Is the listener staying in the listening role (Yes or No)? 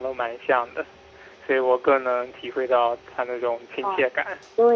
No